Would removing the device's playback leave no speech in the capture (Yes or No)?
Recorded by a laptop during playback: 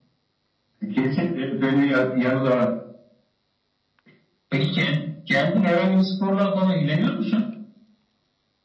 Yes